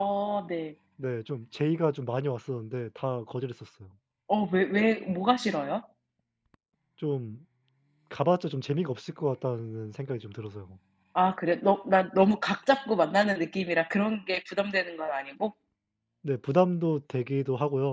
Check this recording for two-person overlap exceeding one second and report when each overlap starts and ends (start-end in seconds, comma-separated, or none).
none